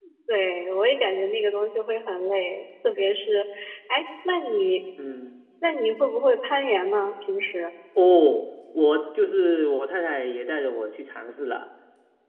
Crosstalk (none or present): none